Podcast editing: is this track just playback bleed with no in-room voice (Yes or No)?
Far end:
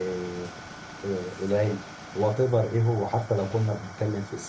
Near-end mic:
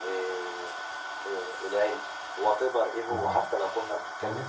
No